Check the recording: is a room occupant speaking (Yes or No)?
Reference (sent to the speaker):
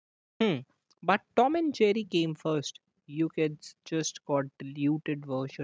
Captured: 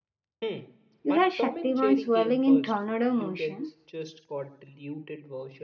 Yes